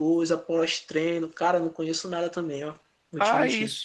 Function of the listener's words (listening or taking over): taking over